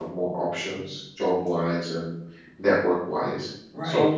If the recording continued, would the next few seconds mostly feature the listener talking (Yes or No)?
Yes